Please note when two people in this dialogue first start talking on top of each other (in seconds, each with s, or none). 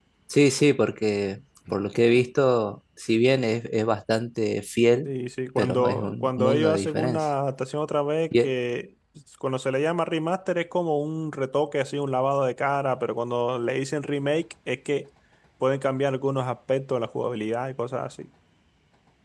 5.6 s